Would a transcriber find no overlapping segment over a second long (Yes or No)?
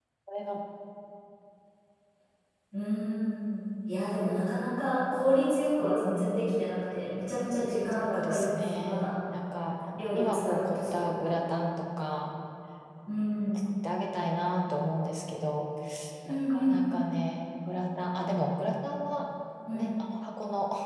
No